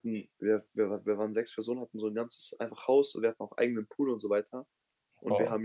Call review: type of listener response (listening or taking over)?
listening